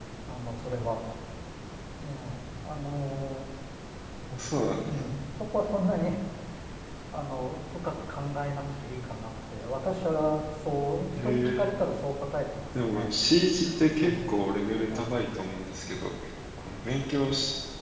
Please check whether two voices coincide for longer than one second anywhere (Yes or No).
No